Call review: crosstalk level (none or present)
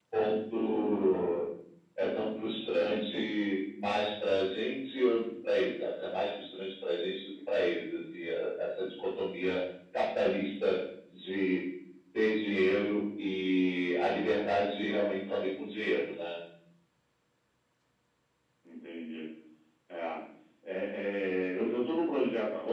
none